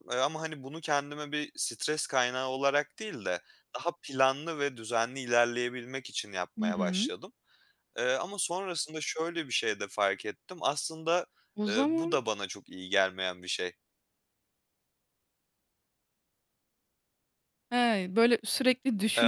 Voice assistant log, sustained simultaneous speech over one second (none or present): none